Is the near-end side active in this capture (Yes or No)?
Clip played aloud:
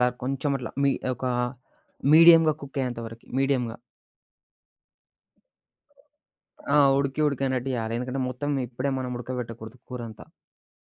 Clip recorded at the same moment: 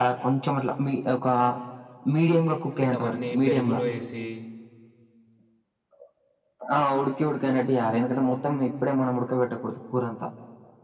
Yes